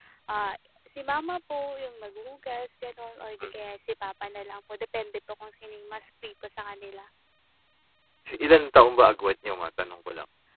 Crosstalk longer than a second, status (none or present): none